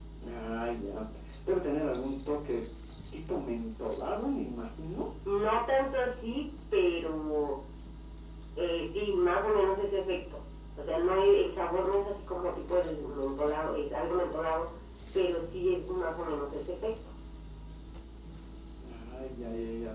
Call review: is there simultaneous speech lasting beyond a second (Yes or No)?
No